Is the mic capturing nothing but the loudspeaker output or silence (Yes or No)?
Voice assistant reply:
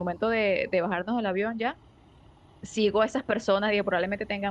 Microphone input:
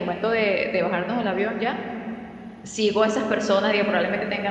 Yes